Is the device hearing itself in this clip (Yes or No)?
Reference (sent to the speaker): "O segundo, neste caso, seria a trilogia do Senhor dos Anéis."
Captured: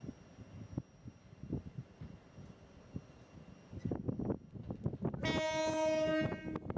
No